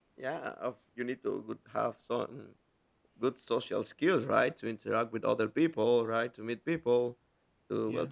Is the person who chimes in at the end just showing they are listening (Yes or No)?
Yes